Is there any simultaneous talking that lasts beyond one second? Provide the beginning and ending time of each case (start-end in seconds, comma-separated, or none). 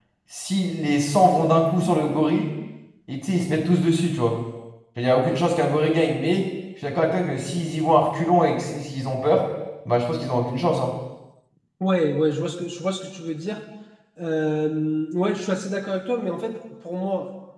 none